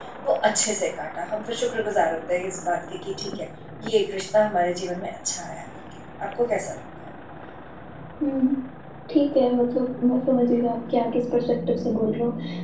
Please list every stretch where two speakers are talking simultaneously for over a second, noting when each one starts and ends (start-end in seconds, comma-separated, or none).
none